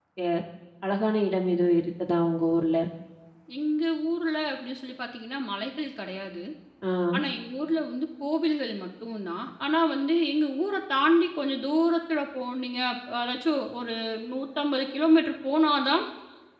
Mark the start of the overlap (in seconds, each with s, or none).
none